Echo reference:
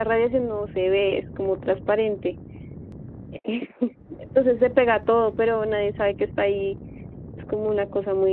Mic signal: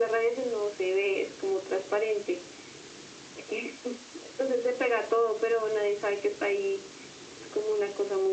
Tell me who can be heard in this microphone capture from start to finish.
echo only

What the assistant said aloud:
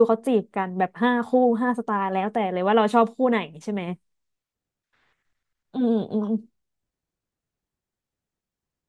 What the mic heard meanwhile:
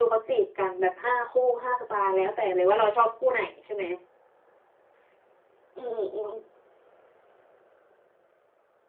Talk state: echo only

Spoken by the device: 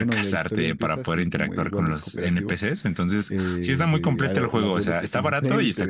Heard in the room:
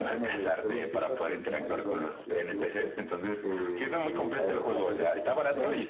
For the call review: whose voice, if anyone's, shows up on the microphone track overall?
echo only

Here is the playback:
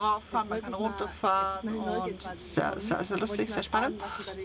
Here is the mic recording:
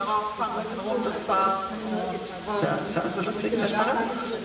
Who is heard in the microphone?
both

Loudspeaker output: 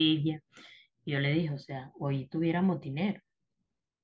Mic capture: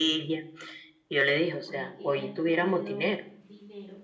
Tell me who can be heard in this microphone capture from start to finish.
both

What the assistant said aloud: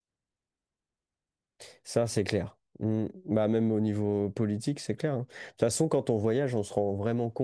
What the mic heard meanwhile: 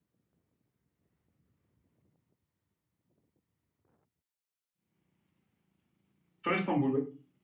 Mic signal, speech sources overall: user only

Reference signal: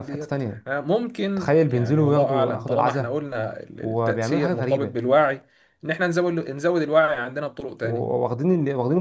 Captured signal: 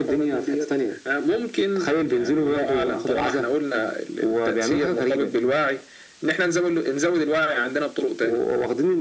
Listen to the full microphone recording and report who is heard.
echo only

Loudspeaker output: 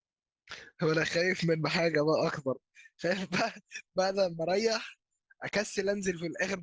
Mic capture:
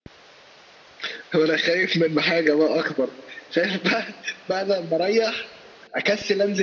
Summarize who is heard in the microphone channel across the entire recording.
echo only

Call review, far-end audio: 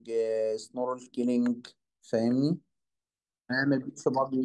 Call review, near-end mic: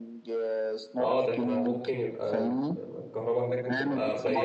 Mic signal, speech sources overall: both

